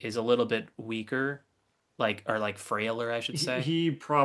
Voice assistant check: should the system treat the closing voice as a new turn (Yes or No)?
Yes